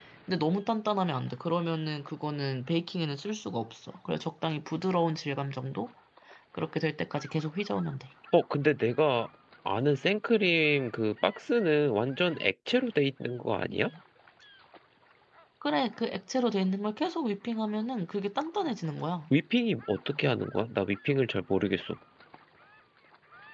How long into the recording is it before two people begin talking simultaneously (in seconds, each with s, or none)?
none